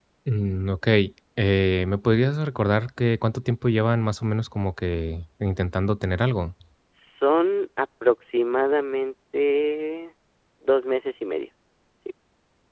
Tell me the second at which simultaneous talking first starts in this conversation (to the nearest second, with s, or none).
none